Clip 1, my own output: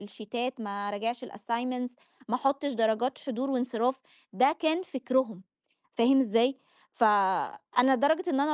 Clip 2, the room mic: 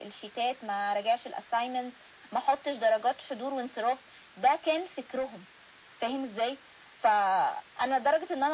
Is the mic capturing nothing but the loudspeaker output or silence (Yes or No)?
Yes